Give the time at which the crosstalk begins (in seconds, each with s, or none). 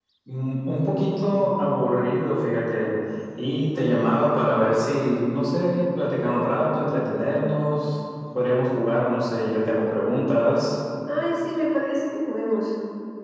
none